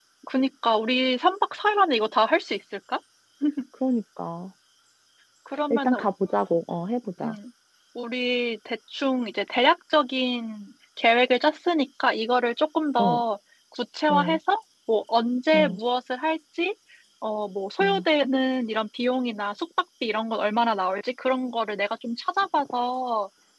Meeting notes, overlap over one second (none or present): none